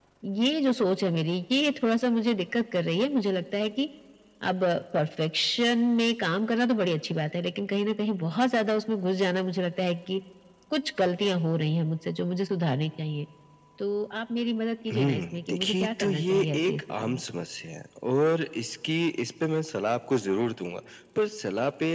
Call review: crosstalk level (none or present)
present